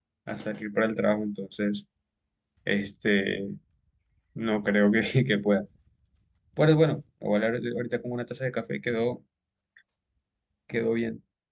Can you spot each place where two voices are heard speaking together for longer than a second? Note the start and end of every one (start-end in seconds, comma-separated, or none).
none